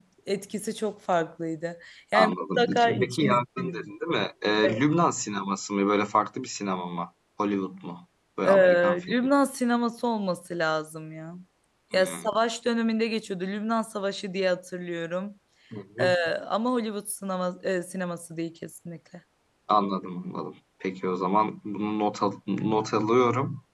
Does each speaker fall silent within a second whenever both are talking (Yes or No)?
No